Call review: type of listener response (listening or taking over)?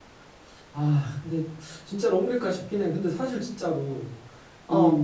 listening